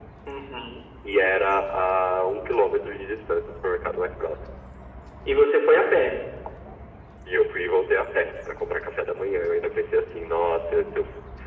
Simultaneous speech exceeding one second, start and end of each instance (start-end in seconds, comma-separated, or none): none